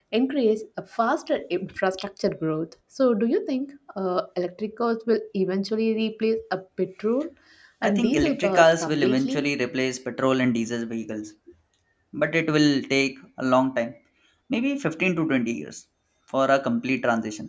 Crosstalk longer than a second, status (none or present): present